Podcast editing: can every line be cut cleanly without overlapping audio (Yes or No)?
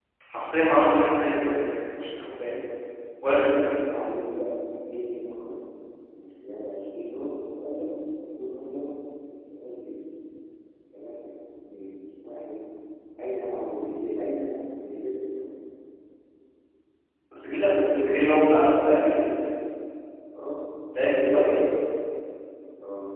Yes